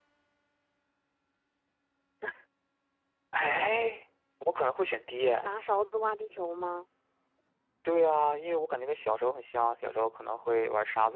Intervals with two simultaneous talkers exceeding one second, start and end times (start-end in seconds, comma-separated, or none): none